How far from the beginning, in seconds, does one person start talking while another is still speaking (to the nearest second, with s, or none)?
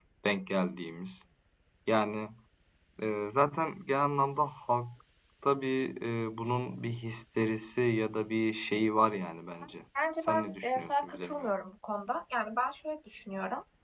10 s